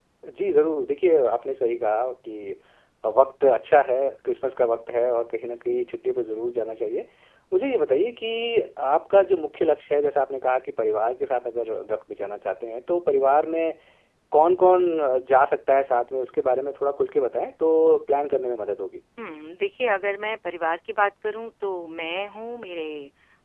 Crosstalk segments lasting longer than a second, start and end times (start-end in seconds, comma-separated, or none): none